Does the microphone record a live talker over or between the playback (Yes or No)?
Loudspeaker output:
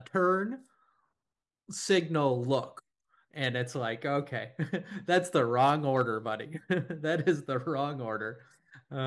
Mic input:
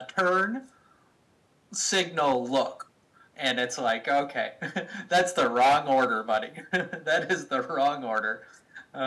No